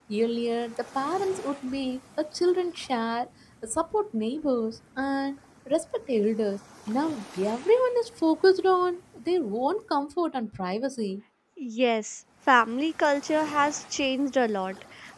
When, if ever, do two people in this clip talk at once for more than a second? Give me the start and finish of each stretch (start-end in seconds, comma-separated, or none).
none